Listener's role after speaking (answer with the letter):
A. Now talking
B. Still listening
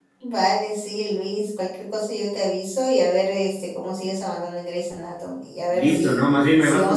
A